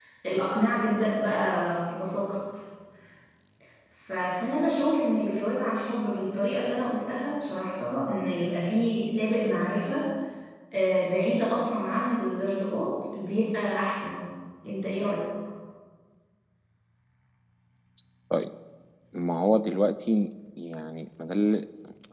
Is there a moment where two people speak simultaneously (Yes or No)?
No